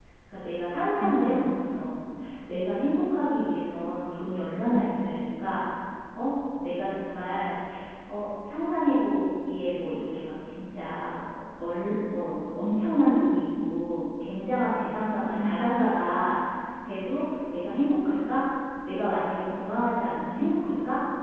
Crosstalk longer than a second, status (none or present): none